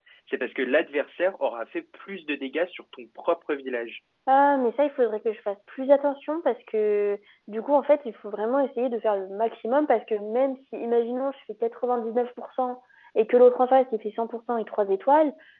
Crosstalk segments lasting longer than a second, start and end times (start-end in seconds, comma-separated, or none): none